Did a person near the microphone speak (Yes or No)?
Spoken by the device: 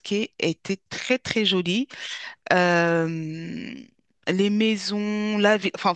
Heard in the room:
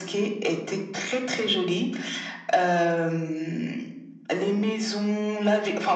No